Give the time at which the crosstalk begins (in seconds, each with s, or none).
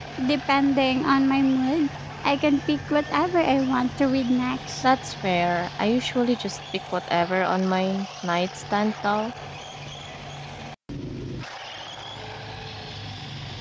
none